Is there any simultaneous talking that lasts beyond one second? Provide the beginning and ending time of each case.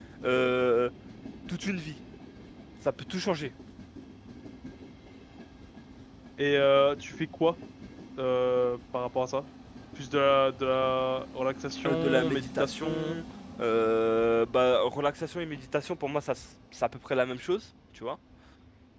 11.9-13.2

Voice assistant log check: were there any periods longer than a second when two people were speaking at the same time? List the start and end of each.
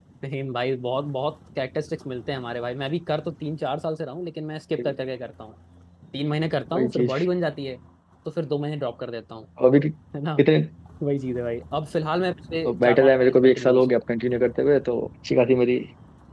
12.6-14.0

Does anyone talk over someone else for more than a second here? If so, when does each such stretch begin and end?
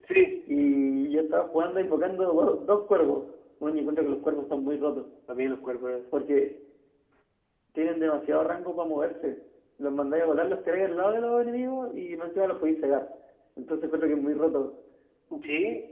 none

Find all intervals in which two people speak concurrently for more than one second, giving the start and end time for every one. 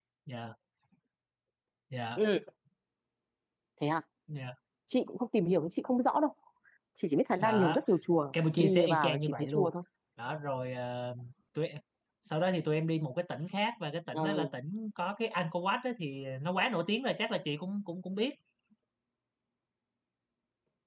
8.3-9.7

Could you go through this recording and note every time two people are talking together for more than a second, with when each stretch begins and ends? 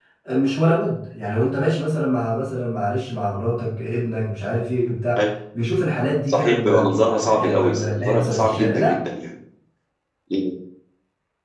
6.3-8.9

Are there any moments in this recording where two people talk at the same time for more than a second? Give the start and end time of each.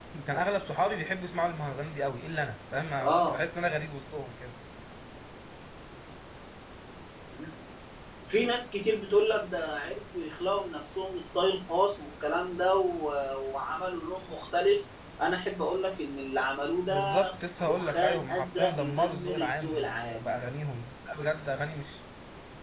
17.7-20.4

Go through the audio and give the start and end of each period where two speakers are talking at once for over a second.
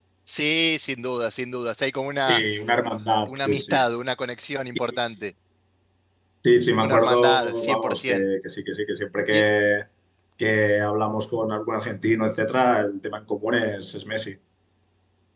6.8-8.2

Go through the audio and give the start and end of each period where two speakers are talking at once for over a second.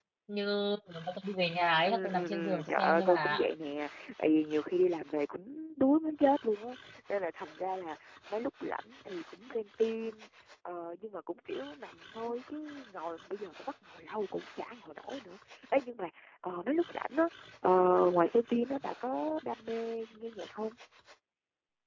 1.8-3.5

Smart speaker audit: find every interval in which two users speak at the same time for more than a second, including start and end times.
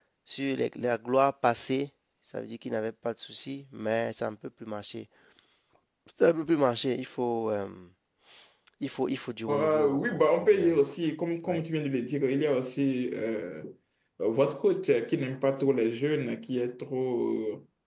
9.5-10.8

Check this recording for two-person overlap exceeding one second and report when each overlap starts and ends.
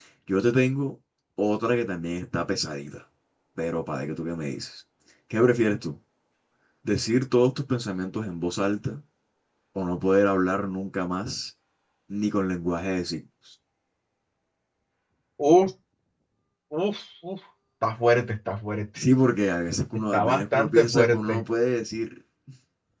20.1-21.4

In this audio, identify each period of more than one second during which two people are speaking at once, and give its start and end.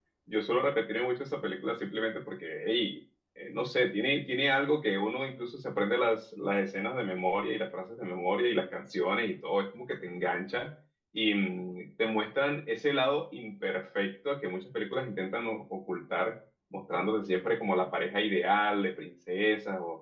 none

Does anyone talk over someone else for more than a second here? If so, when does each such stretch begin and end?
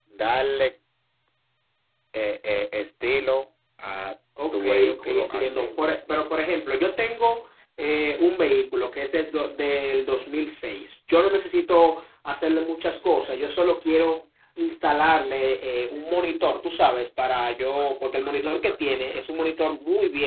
4.5-5.9

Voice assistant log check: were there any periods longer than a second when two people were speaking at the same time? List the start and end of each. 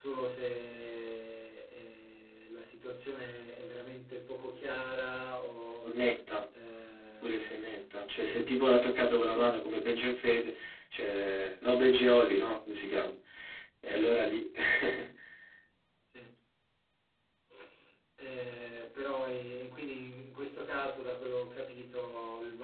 7.2-8.6

